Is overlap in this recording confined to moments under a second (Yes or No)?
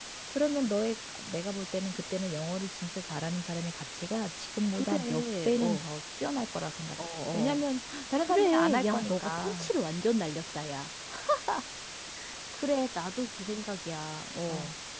No